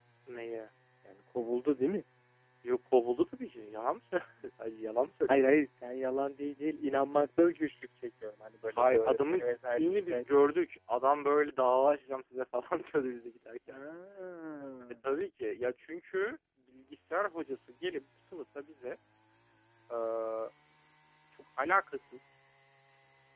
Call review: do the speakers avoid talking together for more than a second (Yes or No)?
No